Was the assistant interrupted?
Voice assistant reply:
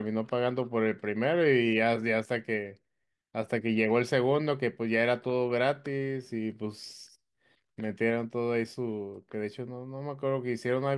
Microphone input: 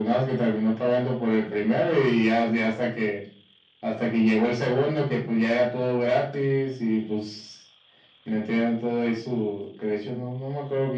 No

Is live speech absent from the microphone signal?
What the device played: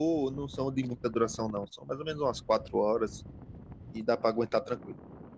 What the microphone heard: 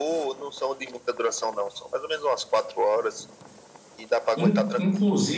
No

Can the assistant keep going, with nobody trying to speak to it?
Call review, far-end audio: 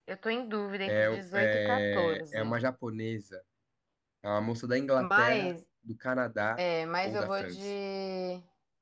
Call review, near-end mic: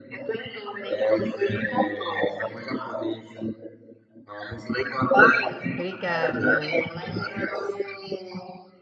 No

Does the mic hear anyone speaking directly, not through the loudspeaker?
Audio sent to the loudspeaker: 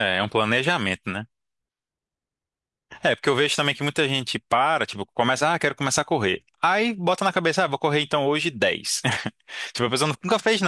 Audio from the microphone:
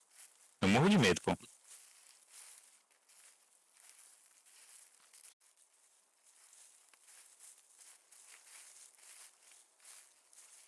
Yes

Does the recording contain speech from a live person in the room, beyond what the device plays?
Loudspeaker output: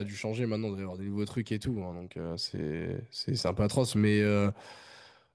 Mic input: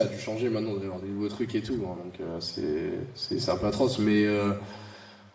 No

